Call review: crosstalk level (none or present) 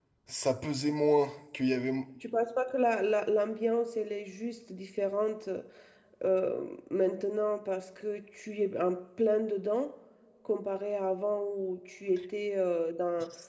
none